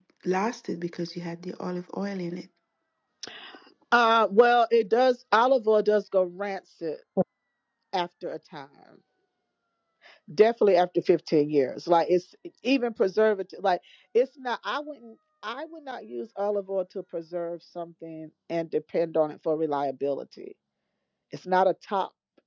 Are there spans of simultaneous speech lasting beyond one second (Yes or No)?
No